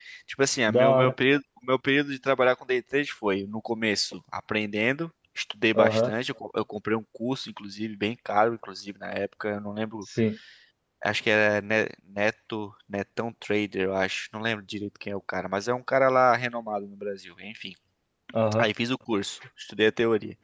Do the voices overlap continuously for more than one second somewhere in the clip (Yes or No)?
No